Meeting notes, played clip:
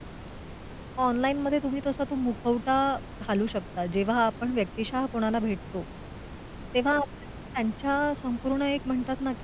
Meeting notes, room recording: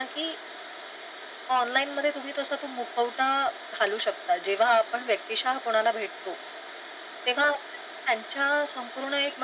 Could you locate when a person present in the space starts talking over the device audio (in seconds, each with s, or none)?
none